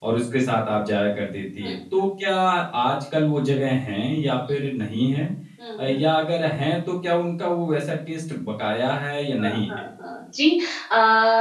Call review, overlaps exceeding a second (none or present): none